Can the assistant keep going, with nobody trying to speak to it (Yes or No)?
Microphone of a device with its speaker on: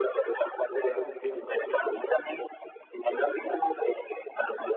No